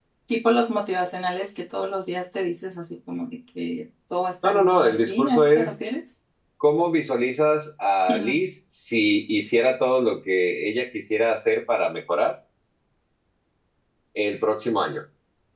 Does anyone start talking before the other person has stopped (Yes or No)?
Yes